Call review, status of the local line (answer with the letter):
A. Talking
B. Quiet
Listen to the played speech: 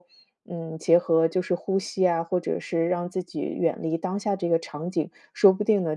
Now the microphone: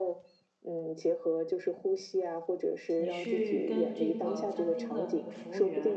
A